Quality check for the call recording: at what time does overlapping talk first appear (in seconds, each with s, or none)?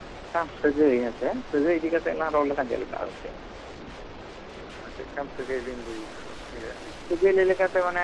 none